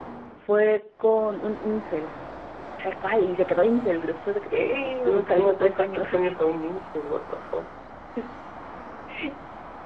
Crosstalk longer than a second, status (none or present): present